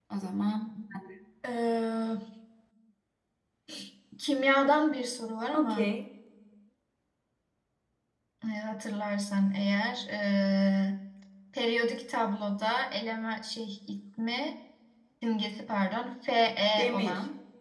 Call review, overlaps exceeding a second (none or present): none